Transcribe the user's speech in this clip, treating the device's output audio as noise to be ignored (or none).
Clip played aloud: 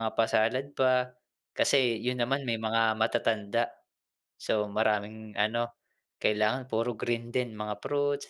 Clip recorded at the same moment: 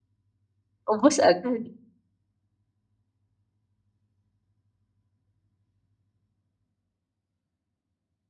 Ubos agad.